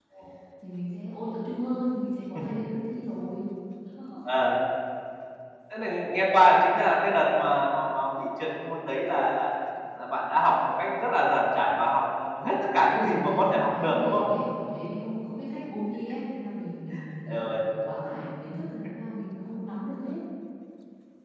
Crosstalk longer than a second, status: present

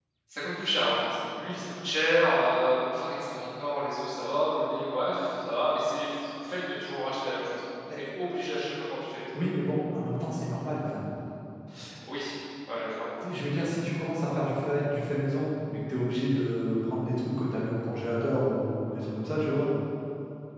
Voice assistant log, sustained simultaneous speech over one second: none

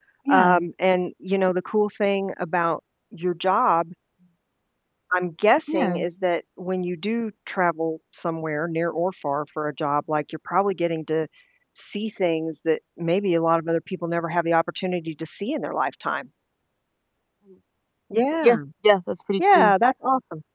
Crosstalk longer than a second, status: none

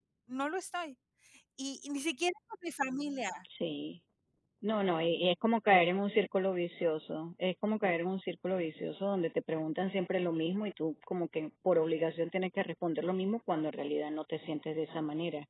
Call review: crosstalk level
none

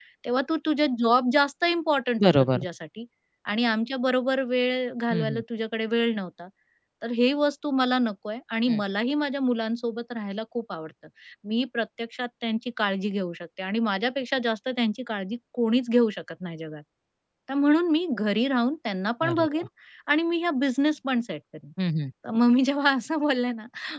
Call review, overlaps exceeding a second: none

